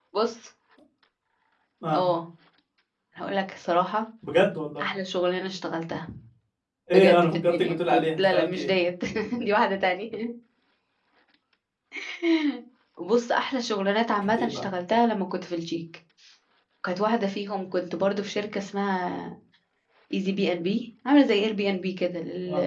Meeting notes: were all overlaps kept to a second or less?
No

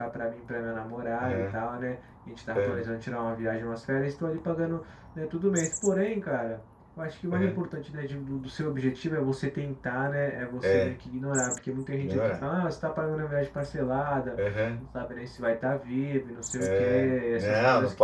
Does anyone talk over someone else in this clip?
Yes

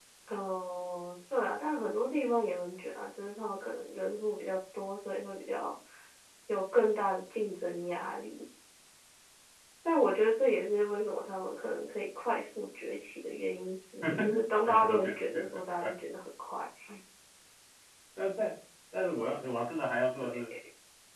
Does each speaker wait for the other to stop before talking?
No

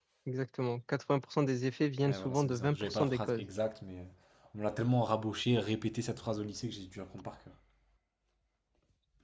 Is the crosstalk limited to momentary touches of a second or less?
No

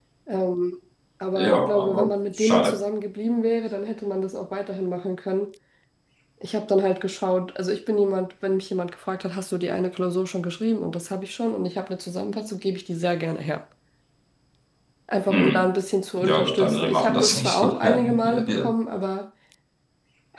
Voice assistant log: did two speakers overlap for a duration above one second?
Yes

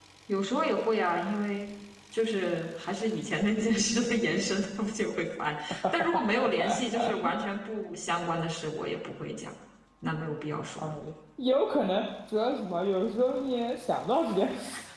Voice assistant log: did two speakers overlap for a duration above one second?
No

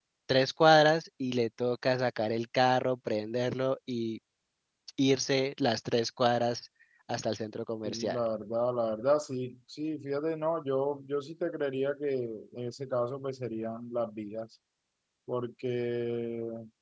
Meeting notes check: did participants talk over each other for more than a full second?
No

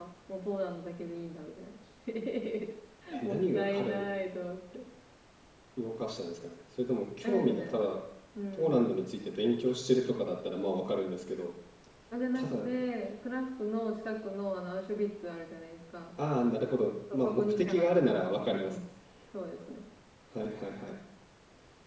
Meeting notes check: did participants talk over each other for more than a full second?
Yes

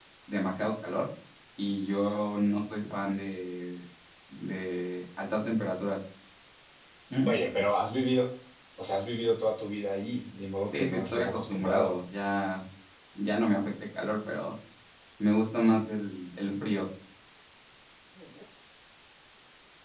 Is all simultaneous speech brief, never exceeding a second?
No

